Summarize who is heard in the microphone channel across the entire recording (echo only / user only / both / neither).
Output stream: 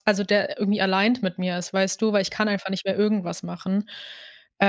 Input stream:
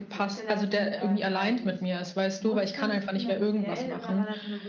both